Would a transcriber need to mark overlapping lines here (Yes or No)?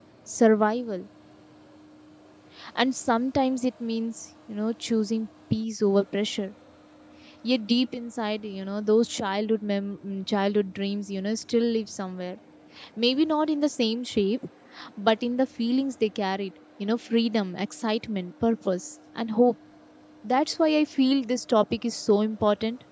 No